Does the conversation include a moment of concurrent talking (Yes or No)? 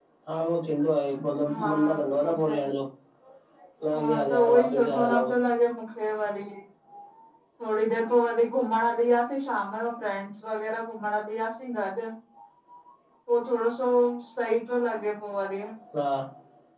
Yes